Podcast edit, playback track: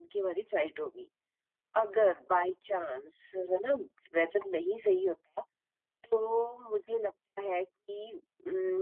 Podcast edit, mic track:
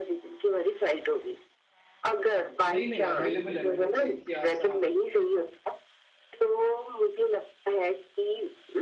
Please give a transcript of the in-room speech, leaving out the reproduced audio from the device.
नहीं नहीं अवेलेबल है मैंने चेक किया ऐसा

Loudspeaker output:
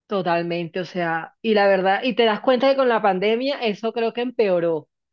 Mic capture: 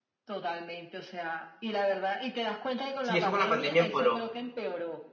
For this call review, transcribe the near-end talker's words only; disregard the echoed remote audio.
Sí, eso con la pandemia empeoró.

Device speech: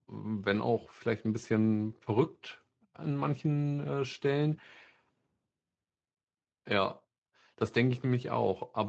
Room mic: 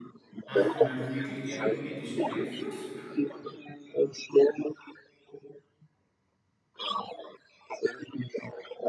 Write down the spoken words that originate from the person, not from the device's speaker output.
Ach, du meinst wirklich, der hat politischen Einfluss?

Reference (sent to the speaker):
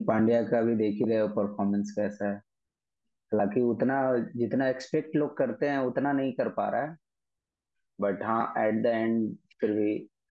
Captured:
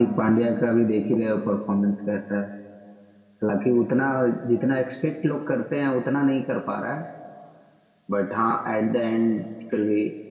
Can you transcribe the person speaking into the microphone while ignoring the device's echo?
none

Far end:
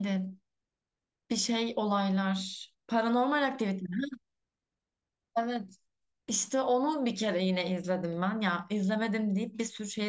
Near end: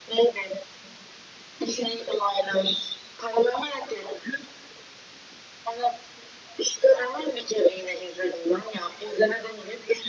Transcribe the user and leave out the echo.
none

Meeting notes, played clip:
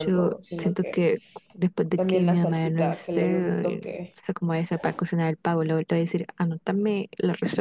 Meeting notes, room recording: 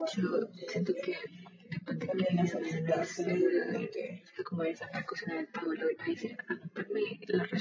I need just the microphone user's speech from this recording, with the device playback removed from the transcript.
none

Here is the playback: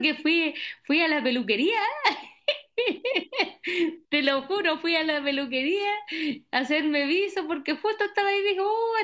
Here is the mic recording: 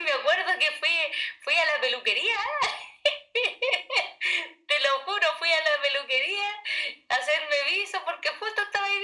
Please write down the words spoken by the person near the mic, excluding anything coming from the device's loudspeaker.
none

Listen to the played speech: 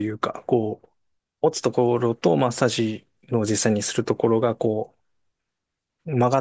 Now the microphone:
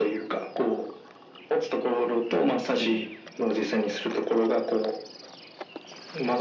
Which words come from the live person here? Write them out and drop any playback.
うん。

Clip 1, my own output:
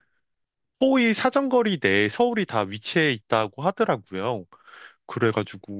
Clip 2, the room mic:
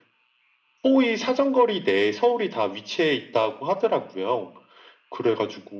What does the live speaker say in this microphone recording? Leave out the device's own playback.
none

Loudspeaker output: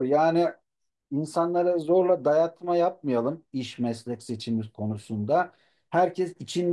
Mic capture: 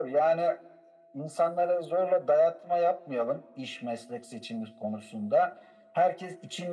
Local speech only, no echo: none

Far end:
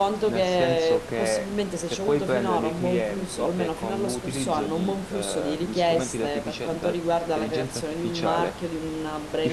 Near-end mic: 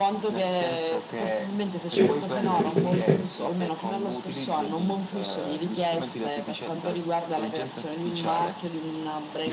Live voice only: sì, sì, sì, sì. sì.

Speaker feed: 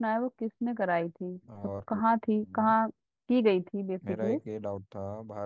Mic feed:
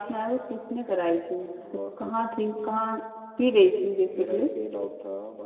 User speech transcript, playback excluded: none

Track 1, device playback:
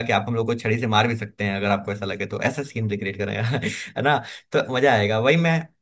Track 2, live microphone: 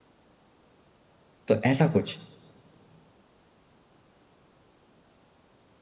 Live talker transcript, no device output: तो ऐसा कुछ

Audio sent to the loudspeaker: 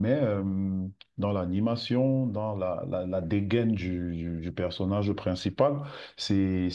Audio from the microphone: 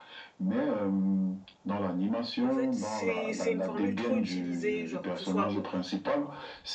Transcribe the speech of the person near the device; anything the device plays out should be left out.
En fait, c'est c'est une formule trop utilisée, genre que ce soit bon,

